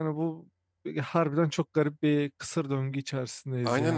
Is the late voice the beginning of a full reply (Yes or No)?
Yes